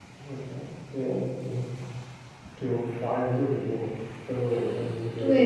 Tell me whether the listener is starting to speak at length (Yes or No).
Yes